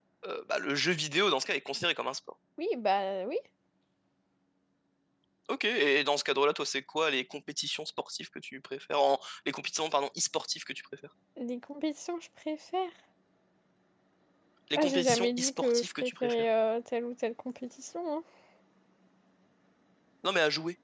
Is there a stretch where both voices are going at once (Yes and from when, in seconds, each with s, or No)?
Yes, from 14.8 s